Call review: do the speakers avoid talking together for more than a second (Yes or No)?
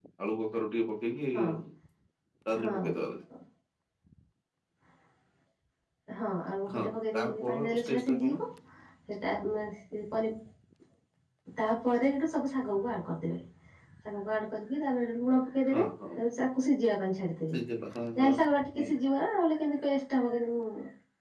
No